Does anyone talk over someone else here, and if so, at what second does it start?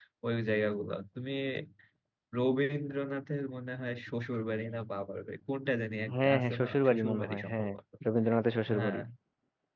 6 s

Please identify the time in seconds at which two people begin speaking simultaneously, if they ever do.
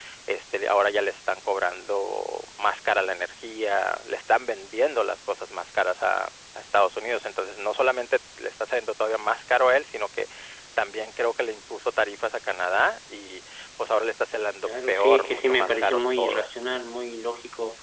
15 s

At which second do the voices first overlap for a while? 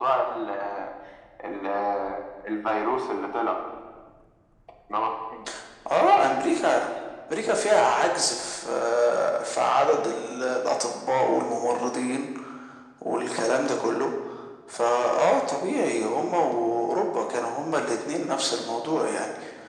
none

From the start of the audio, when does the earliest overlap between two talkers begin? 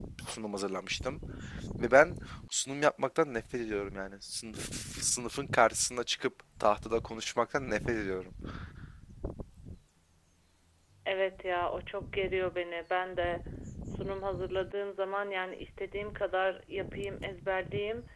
none

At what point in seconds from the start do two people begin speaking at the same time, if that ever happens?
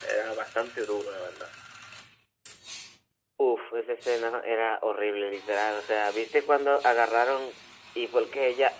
none

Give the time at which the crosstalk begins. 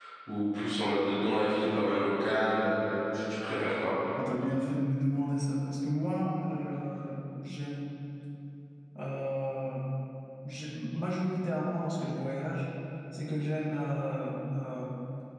none

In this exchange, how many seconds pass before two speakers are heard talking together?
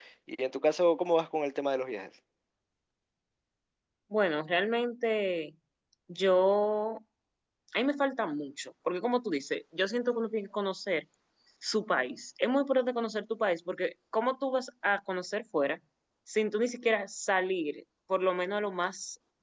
none

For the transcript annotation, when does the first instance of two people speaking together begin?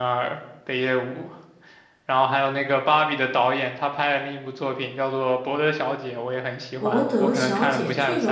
7 s

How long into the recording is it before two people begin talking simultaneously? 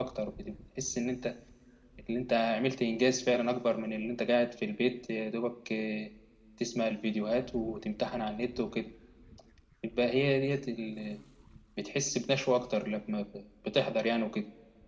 none

